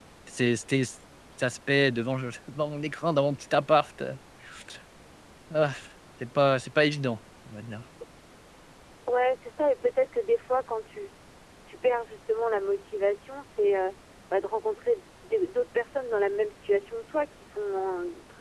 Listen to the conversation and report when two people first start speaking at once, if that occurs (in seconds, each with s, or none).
none